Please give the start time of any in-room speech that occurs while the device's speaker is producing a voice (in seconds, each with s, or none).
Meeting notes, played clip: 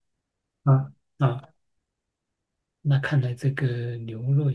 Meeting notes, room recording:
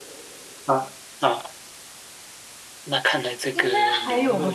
3.5 s